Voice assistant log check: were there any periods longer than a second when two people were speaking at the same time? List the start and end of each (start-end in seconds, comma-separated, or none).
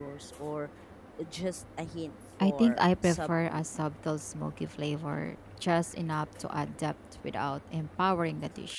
2.4-3.7